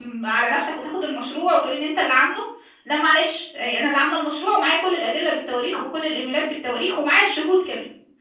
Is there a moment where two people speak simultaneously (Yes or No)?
No